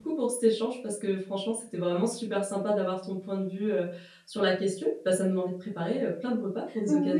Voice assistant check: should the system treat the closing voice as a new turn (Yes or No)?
Yes